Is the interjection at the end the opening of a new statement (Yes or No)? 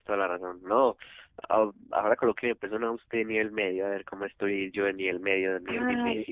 Yes